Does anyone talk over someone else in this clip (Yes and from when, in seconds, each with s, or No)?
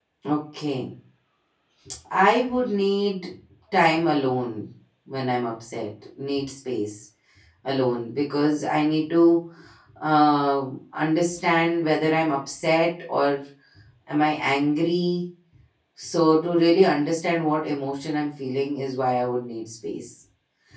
No